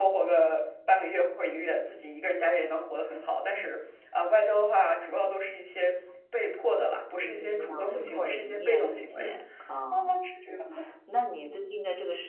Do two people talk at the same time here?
Yes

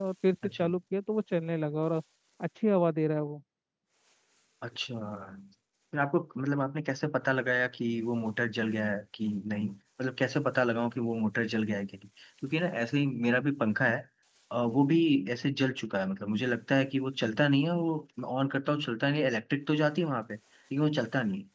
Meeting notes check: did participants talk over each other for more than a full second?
No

